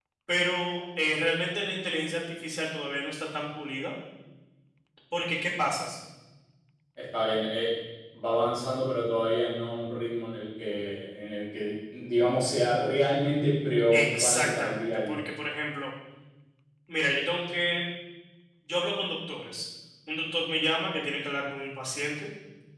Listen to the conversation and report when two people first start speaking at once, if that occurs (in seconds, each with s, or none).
13.9 s